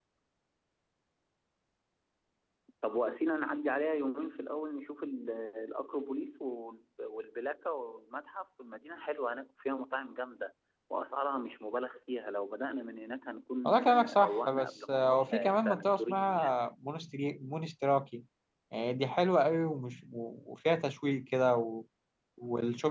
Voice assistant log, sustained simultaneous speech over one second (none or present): present